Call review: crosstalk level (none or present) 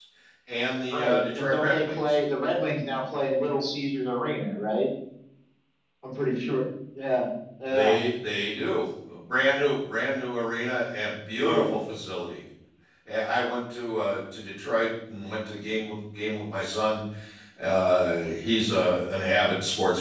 present